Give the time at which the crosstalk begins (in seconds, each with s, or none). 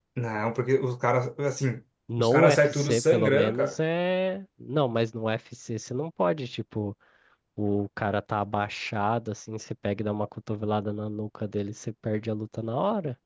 2.1 s